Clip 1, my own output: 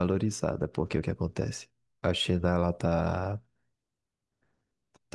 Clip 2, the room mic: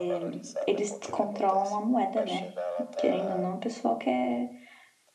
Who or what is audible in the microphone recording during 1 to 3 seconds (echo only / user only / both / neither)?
both